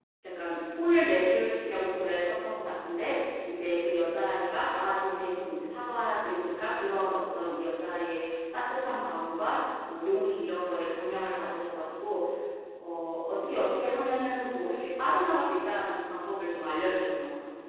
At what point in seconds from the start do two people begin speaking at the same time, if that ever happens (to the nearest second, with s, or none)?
none